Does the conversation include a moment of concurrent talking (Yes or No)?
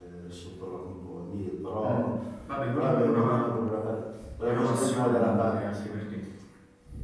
Yes